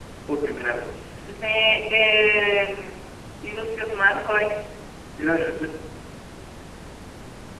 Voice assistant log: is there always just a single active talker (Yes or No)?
Yes